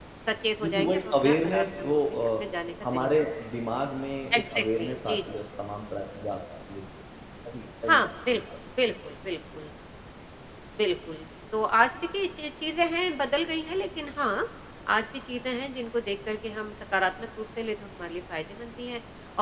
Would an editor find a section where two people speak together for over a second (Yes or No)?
Yes